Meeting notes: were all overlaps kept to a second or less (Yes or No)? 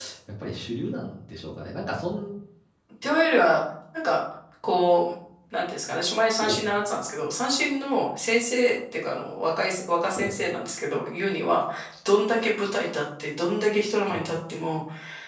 Yes